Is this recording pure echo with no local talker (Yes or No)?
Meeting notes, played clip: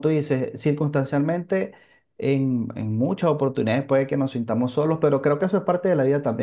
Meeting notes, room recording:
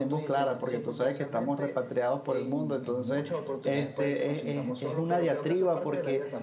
No